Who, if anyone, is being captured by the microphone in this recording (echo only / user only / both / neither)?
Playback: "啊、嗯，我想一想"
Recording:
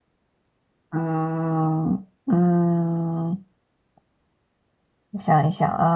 echo only